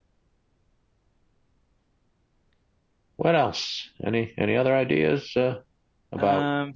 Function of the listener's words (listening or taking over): listening